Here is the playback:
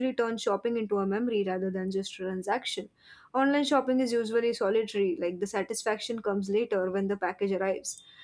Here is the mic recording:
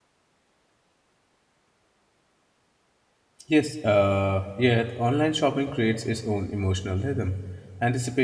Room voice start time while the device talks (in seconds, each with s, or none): 3.5 s